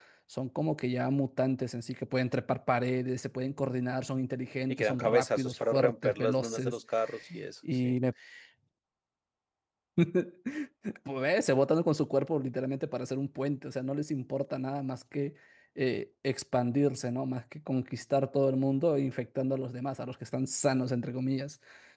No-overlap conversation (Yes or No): No